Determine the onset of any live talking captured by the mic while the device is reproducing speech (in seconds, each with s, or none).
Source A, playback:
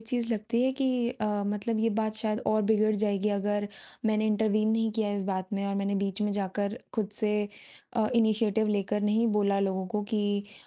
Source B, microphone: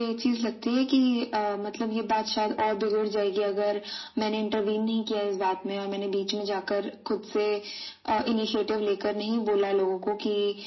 none